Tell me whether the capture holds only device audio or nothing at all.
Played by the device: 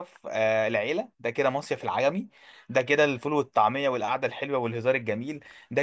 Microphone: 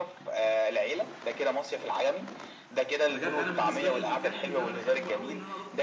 No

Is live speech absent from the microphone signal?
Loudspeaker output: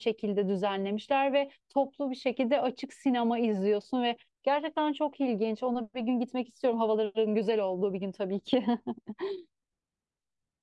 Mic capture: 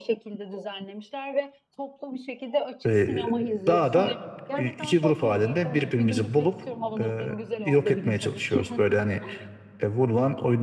No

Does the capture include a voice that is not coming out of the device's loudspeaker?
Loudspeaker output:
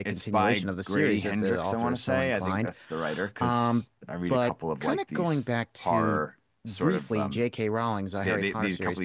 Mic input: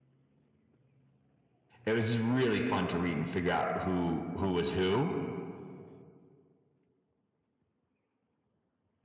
Yes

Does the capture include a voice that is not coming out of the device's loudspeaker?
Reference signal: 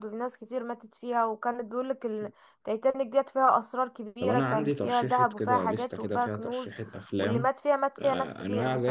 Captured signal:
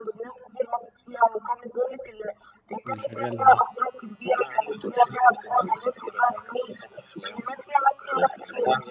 Yes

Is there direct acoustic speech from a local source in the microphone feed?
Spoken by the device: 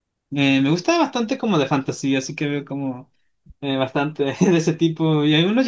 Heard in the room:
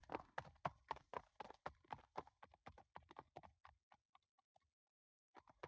No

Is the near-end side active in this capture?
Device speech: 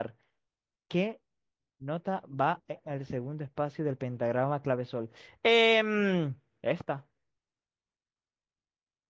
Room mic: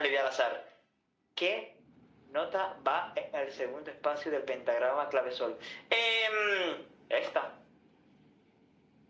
No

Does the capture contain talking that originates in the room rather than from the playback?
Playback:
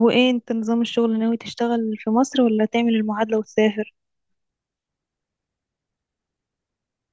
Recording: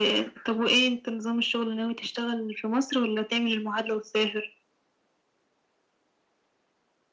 No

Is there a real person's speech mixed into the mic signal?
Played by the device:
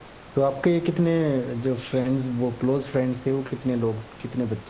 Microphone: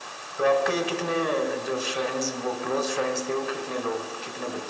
No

